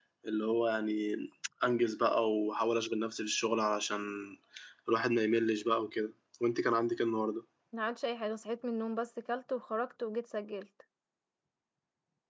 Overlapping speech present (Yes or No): No